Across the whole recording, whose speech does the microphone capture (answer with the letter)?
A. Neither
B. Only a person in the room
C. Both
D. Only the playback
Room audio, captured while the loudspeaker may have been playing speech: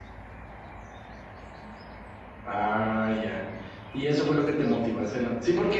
B